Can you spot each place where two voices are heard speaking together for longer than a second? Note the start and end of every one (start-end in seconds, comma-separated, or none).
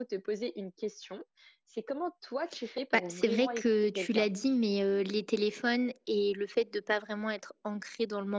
2.9-4.3